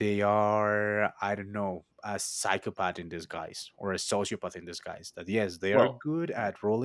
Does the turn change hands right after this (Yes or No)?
No